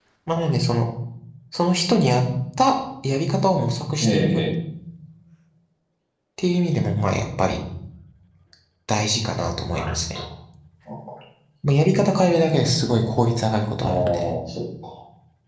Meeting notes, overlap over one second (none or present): none